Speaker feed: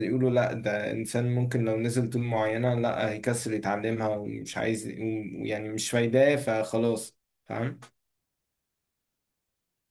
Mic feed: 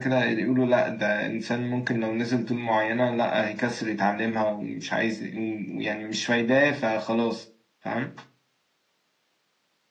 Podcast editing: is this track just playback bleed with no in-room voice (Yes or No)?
Yes